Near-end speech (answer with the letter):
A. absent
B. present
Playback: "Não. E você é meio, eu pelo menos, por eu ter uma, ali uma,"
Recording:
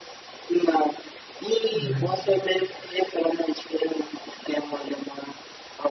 B